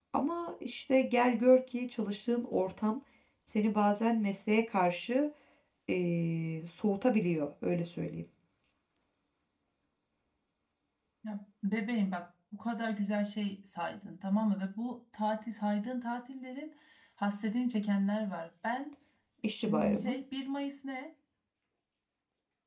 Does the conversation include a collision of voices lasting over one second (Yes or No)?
No